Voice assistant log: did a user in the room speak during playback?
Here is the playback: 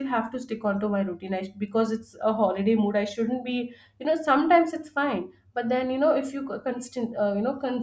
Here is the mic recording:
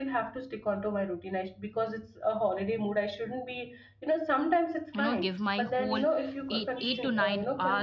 Yes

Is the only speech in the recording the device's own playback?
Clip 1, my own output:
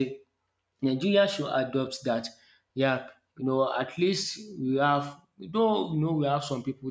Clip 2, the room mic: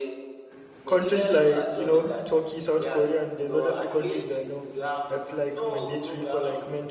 No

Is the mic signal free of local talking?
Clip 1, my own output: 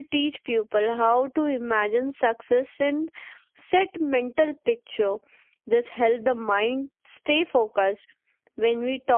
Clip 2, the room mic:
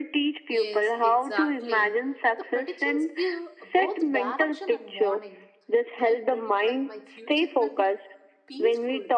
No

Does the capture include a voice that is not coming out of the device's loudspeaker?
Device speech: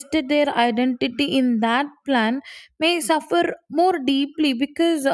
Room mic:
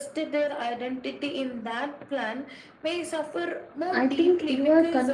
Yes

